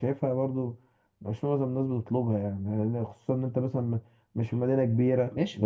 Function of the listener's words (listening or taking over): taking over